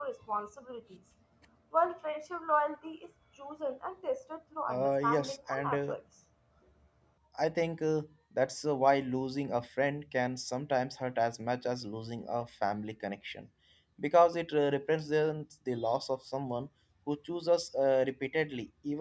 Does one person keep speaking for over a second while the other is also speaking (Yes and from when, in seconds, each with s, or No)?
Yes, from 4.7 s